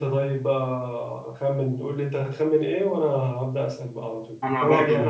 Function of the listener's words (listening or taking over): listening